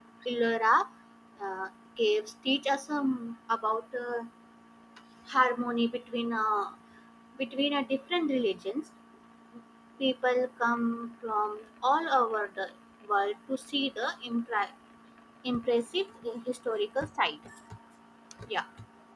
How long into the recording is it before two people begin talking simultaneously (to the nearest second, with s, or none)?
none